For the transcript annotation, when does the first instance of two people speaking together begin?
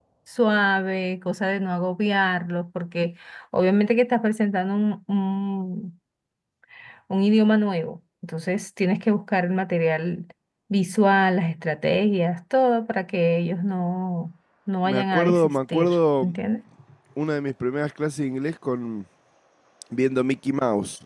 14.8 s

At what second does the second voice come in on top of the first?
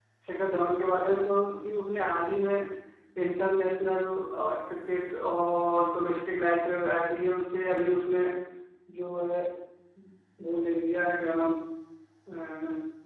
none

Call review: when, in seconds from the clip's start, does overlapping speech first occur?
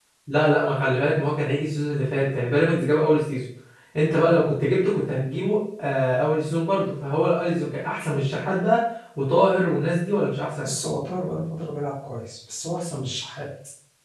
none

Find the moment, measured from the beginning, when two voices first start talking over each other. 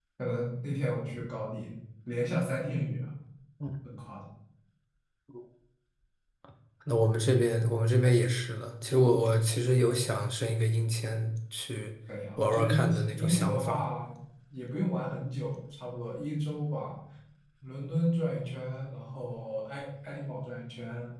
12.4 s

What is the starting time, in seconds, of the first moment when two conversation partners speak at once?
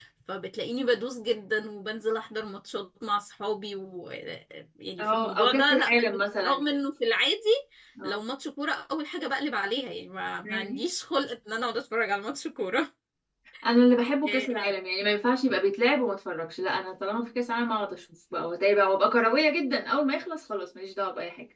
5.0 s

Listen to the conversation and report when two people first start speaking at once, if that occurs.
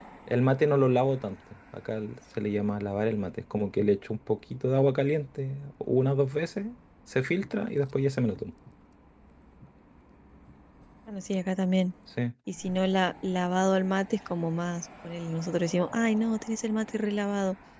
none

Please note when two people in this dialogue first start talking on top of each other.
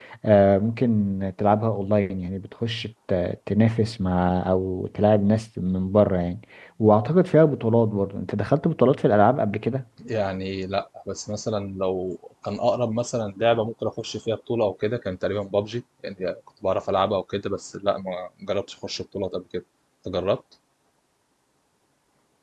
none

